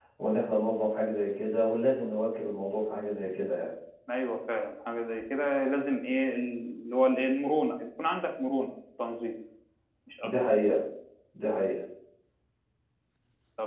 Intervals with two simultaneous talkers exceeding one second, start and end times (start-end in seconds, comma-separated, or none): none